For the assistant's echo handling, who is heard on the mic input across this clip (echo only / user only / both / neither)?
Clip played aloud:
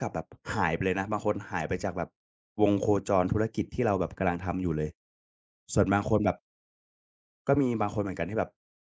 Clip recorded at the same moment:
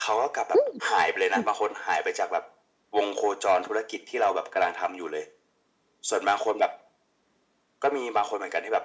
both